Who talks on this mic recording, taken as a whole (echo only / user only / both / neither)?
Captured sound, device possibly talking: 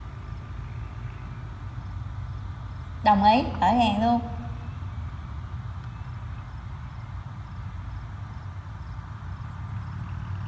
user only